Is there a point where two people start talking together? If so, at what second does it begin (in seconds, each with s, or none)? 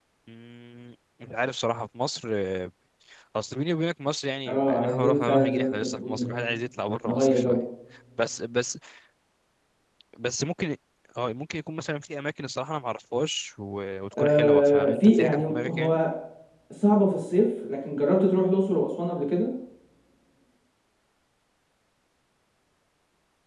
4.5 s